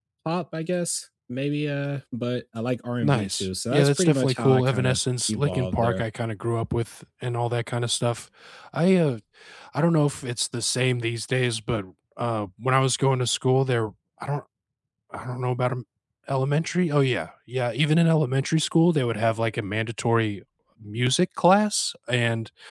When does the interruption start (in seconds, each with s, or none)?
3.0 s